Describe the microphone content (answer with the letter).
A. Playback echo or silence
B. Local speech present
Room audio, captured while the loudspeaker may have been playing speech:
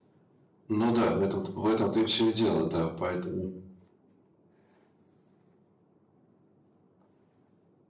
B